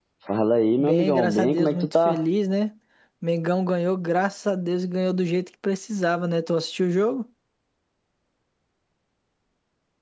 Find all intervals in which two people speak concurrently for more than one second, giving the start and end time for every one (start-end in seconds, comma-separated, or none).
0.8-2.2